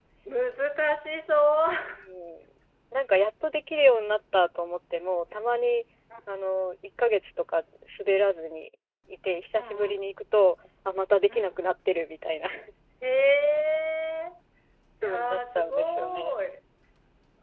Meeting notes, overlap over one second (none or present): present